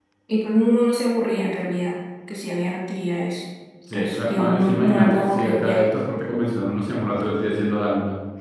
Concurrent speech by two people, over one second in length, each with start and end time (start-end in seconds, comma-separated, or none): 3.9-5.8